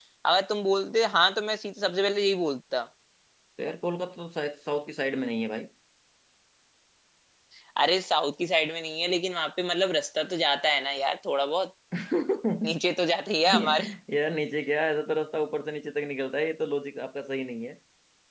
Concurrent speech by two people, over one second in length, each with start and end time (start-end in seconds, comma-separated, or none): none